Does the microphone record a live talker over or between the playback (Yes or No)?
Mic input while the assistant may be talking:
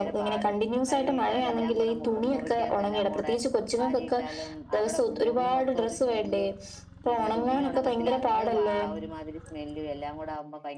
Yes